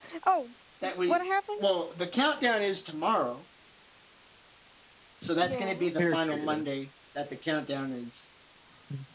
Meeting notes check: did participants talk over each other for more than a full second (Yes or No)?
Yes